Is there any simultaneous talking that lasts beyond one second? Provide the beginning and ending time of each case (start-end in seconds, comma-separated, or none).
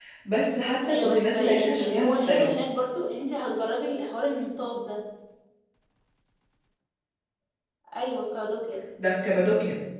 0.9-2.5